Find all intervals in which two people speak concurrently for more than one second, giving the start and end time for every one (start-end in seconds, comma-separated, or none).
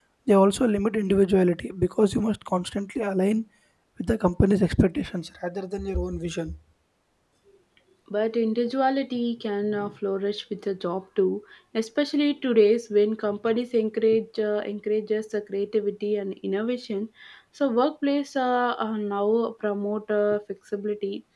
none